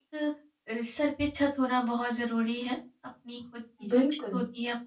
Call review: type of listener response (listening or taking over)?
listening